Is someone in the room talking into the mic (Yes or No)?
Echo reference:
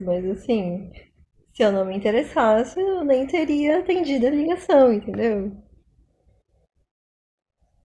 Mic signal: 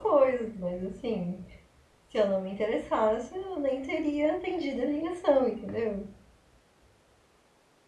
No